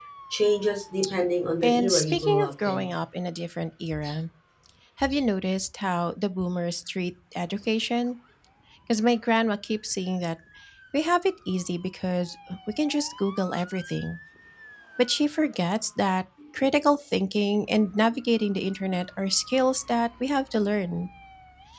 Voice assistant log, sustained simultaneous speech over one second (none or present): present